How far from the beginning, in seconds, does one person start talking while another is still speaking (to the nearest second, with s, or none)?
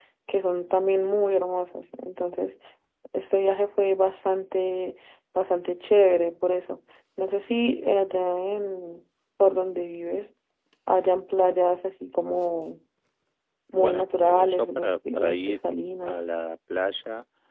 14 s